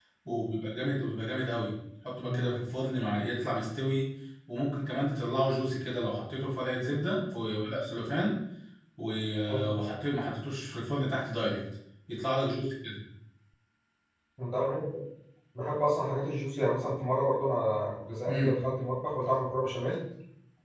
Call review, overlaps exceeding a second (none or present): none